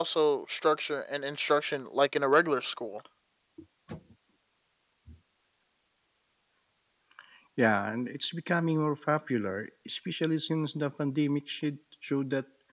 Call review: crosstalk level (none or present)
none